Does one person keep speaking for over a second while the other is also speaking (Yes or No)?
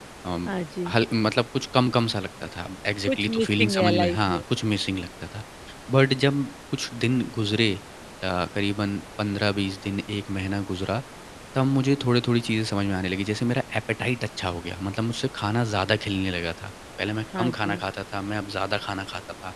Yes